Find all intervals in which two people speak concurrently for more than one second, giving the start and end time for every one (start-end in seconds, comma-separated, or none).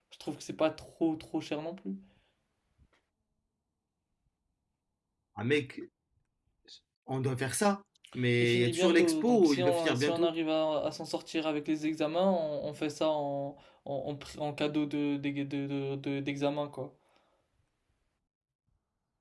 8.4-10.3